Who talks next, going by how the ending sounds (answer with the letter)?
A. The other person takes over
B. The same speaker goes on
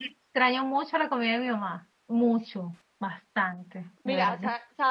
A